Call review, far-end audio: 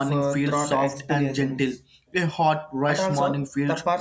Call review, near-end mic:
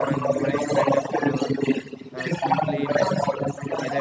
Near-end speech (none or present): present